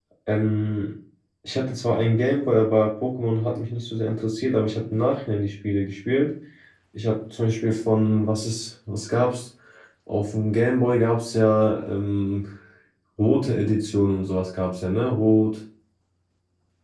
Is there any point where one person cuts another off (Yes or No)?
No